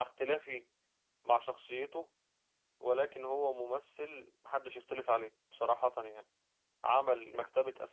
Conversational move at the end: listening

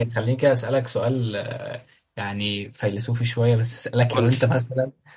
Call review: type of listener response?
listening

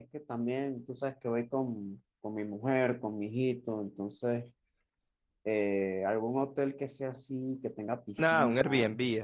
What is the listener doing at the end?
taking over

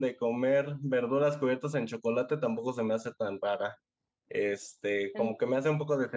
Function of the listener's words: listening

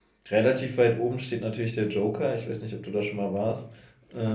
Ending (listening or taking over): taking over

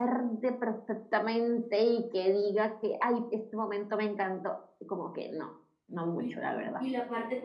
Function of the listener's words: taking over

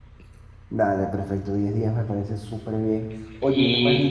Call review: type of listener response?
listening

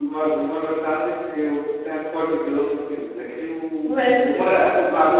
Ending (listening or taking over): listening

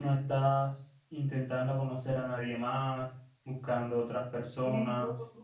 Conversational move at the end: taking over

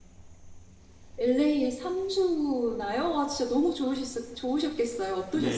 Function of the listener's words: taking over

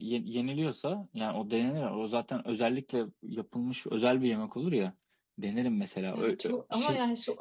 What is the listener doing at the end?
taking over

